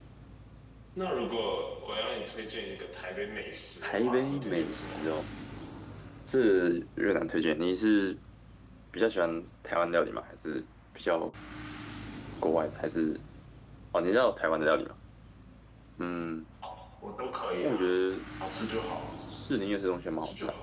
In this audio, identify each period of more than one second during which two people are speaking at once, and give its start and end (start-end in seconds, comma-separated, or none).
3.8-5.0